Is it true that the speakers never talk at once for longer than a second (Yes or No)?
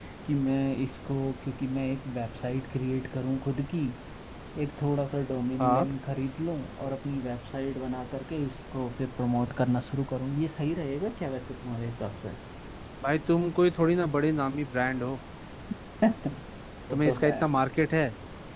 Yes